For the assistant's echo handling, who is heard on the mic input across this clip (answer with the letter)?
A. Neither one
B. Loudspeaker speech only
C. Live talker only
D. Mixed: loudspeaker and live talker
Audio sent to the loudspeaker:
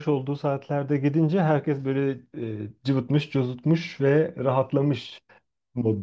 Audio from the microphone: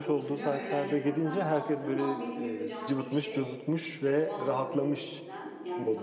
D